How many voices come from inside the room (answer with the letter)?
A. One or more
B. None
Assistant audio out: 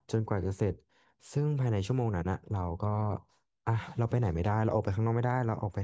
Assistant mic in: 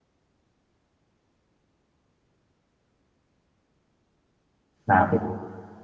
A